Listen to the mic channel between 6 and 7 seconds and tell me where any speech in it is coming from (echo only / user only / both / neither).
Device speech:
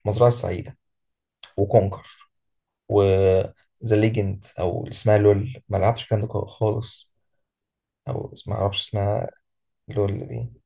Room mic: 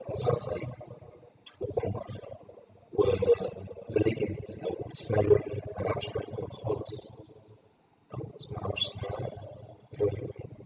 echo only